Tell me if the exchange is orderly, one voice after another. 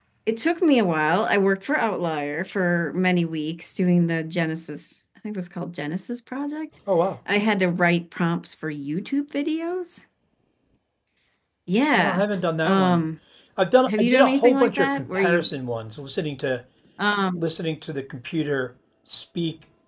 No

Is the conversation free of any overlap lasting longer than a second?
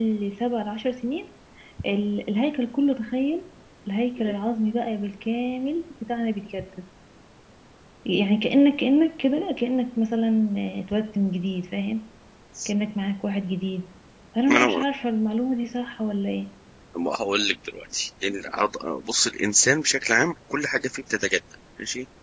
Yes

